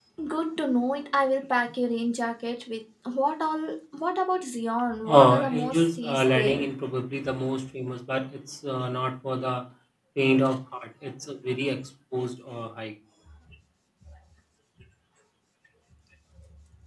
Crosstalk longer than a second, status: present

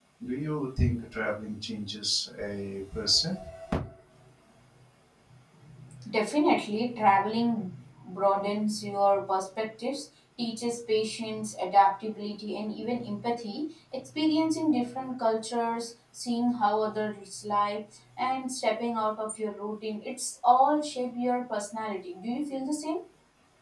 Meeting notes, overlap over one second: none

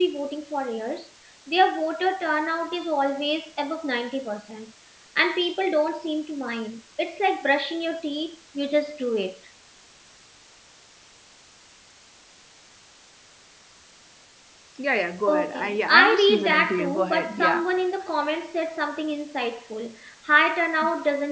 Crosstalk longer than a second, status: present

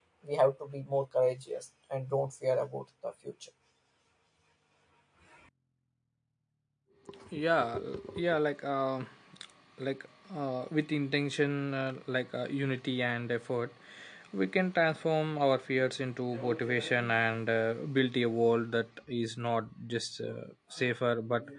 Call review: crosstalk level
none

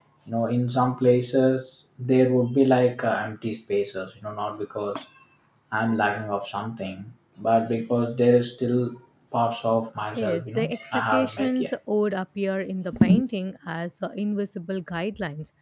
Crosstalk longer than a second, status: present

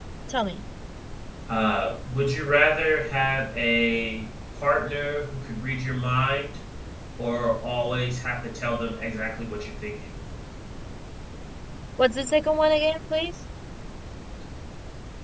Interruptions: none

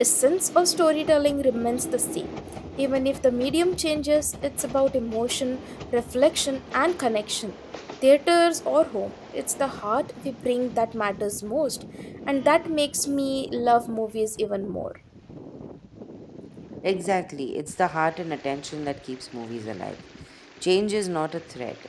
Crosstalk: none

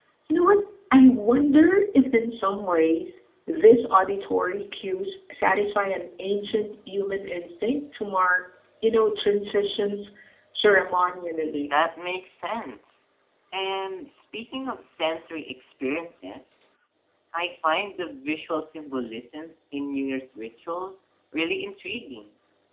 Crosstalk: none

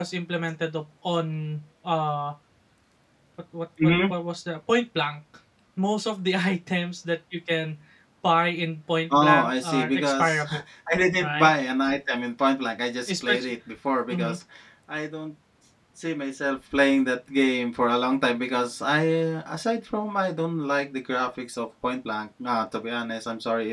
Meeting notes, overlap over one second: present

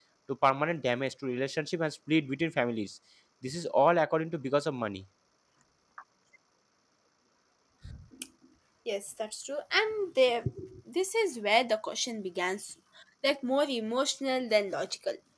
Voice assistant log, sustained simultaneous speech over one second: none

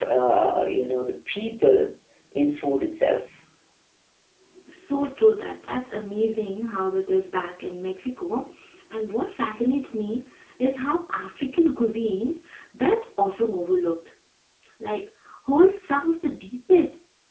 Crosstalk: none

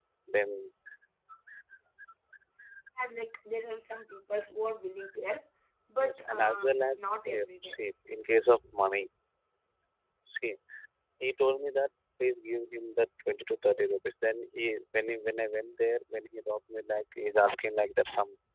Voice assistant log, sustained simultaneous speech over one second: present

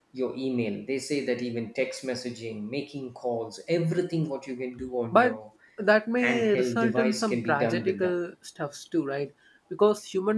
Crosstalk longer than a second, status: present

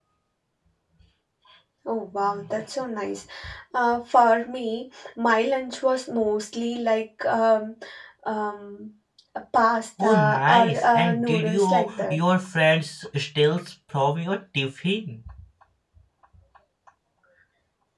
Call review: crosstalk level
present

